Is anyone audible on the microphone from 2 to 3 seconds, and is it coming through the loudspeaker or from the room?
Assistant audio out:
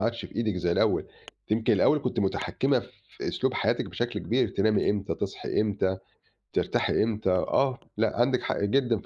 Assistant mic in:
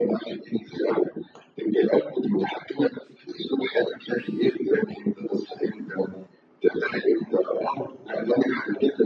echo only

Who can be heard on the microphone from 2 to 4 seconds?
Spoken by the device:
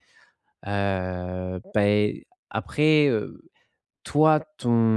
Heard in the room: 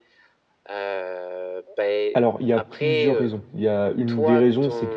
both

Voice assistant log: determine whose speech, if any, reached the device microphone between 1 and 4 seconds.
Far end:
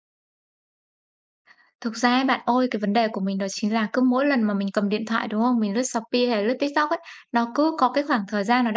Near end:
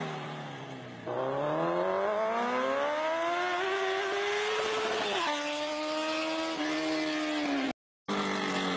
neither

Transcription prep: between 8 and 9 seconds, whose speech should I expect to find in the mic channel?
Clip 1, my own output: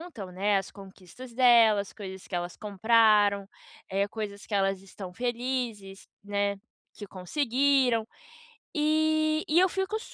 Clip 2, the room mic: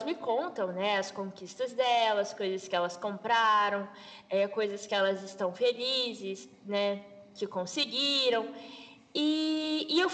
echo only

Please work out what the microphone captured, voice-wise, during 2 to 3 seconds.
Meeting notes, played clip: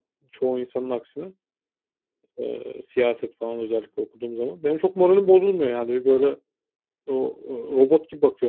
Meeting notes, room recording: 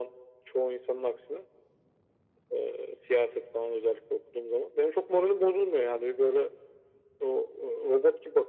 echo only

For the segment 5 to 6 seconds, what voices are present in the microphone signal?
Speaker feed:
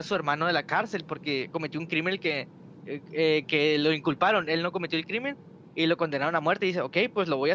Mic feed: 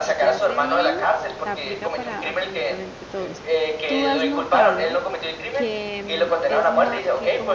both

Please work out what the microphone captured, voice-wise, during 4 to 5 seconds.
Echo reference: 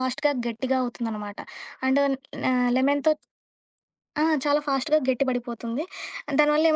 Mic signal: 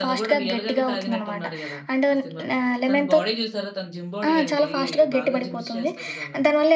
both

